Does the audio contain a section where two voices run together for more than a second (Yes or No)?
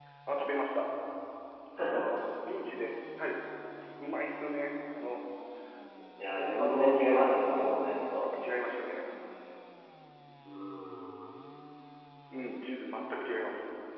Yes